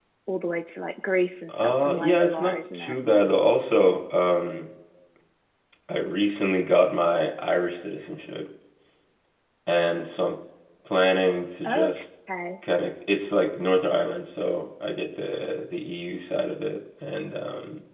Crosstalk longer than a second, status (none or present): present